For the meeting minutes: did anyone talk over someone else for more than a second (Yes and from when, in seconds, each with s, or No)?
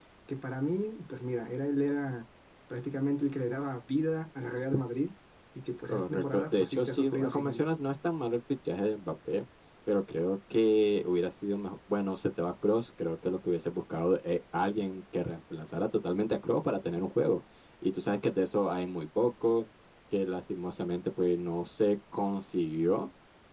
Yes, from 5.9 s